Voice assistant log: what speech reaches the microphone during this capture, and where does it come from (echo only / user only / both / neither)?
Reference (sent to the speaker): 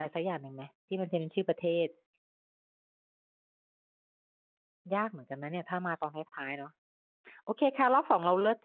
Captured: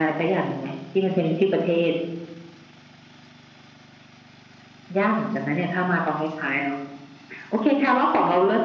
echo only